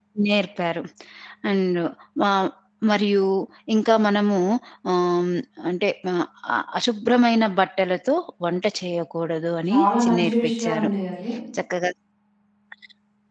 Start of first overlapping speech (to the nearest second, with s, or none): 10 s